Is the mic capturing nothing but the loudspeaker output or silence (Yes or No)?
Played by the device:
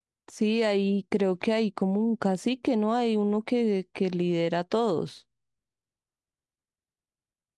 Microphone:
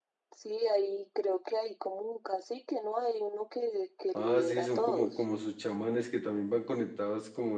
No